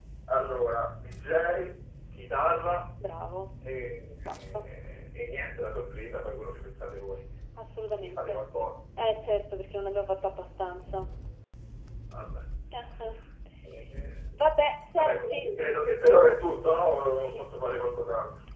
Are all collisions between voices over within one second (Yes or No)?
Yes